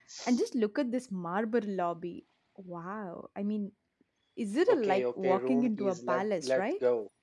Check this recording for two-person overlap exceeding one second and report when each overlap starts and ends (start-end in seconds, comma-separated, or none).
4.7-6.7